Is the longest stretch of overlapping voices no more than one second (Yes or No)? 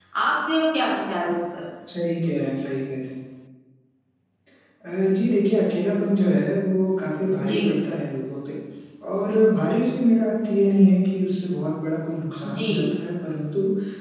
Yes